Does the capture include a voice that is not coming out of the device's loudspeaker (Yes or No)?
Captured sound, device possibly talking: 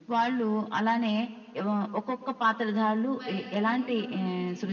Yes